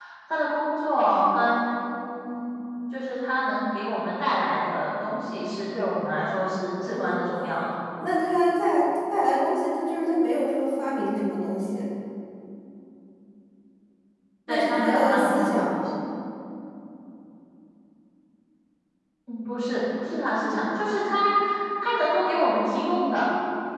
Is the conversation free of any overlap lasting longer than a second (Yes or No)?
No